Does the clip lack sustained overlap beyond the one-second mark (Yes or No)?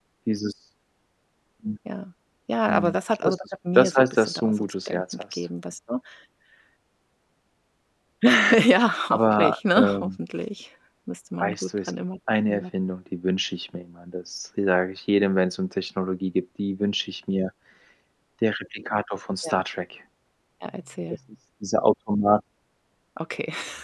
No